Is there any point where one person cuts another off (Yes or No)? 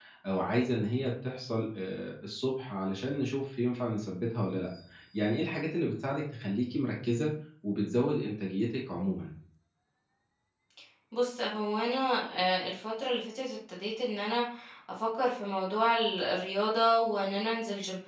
No